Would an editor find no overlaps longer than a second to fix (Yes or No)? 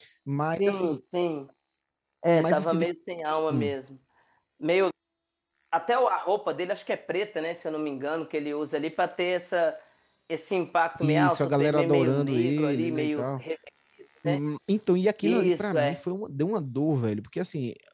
No